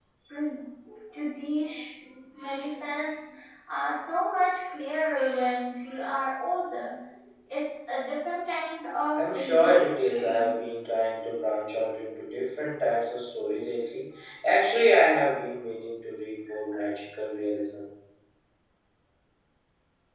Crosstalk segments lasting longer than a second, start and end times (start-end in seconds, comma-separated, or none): 9.2-10.7